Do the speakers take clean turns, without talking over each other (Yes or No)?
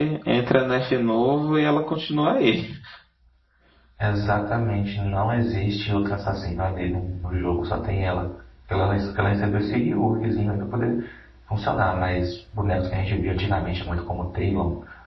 Yes